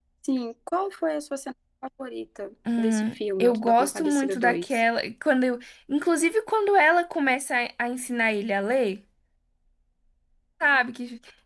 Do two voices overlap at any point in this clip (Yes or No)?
Yes